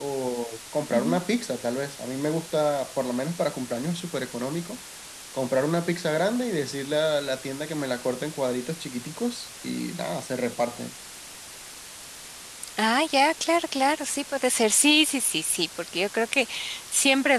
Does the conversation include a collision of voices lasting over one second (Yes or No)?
No